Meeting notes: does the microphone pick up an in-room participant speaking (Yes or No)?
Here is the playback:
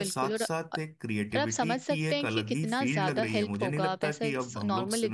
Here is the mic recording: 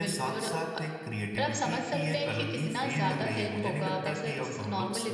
No